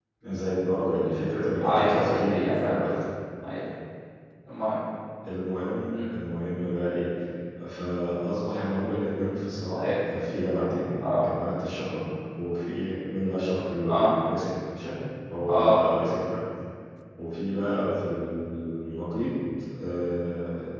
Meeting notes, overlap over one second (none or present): present